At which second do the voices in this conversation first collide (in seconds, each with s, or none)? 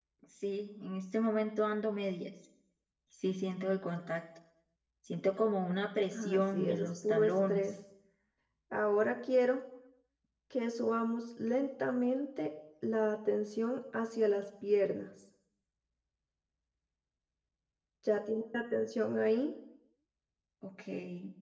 6.1 s